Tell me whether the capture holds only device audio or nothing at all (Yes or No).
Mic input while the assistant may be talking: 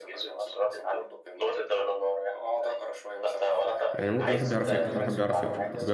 No